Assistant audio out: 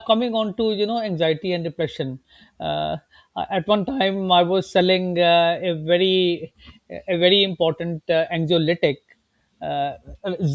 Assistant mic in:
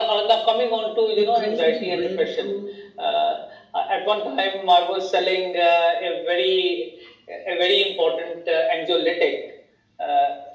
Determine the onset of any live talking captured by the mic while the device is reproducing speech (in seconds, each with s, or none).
1.2 s